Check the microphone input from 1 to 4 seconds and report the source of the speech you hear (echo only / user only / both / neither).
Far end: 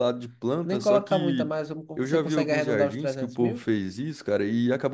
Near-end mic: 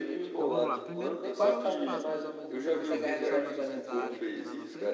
both